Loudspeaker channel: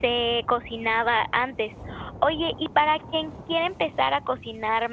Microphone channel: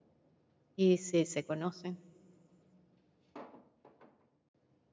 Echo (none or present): none